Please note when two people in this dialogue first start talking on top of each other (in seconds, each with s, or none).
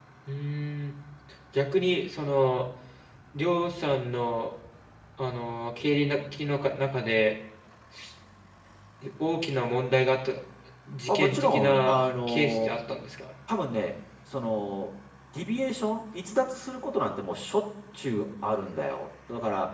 11.1 s